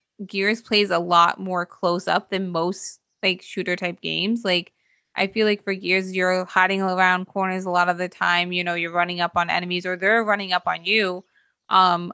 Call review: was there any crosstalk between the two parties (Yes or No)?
No